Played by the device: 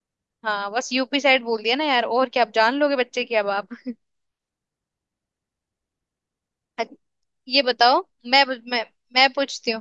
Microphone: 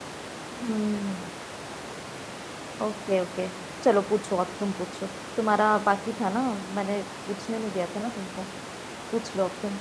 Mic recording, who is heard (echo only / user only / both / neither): user only